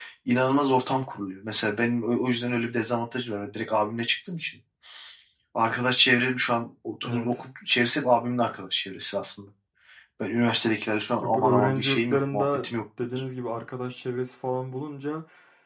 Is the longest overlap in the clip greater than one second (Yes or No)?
Yes